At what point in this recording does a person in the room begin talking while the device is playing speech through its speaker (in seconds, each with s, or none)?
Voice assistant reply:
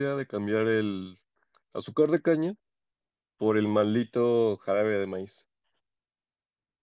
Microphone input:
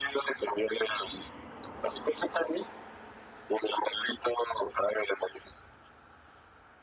none